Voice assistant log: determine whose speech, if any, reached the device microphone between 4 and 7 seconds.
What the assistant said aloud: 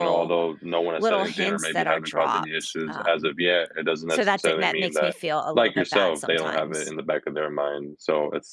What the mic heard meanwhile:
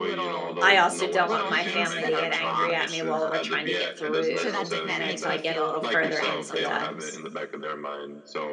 both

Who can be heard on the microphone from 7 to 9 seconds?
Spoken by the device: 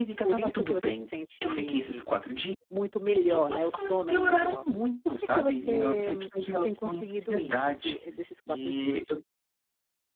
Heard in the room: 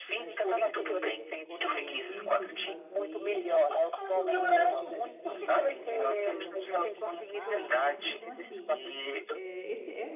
both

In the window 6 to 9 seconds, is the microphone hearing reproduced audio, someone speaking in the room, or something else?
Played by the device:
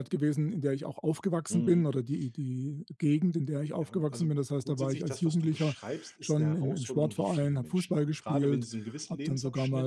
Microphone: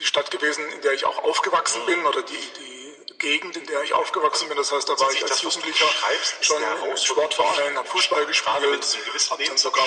echo only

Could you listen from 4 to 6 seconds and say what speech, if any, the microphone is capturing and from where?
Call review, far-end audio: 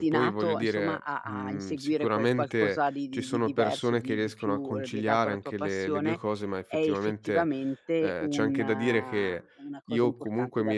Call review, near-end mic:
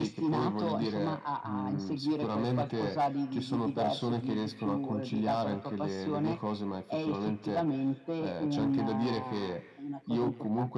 echo only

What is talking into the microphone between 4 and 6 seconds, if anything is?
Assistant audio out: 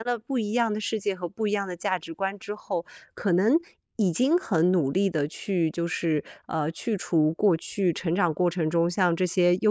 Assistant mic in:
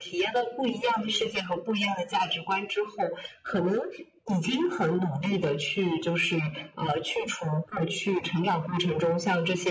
echo only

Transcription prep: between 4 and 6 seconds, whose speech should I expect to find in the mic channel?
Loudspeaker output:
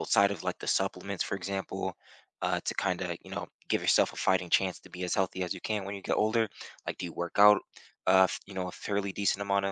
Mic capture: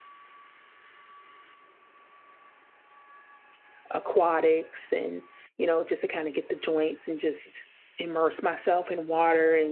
user only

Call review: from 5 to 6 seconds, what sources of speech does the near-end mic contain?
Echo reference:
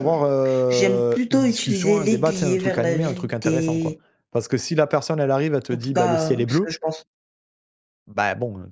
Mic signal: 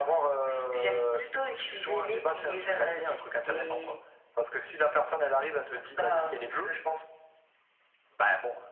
echo only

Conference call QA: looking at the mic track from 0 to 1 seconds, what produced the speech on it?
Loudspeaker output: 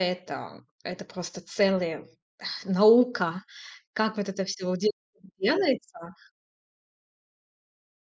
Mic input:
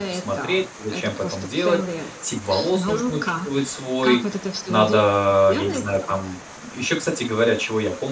both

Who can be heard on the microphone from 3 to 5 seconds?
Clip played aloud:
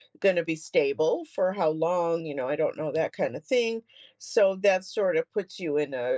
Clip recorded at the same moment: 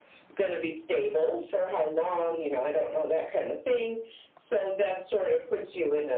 echo only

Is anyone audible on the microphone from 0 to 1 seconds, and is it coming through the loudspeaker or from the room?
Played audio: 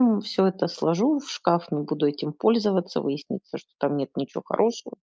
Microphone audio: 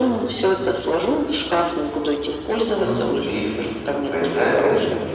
echo only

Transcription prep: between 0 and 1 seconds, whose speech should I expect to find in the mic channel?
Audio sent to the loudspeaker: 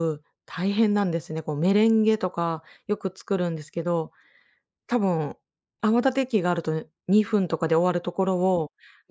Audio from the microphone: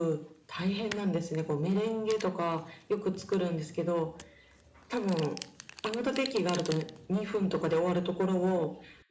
echo only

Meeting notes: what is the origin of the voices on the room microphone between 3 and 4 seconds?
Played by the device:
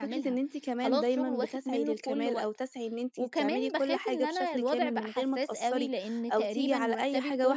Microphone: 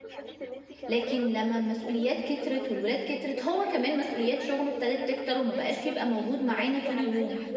both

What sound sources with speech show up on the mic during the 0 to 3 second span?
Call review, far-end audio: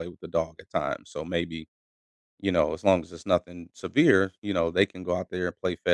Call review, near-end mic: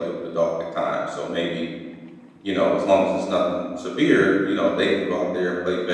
echo only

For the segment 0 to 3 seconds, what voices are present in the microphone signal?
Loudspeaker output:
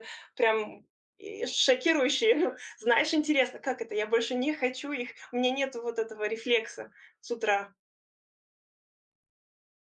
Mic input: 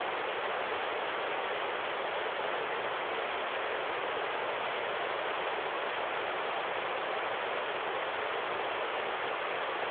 neither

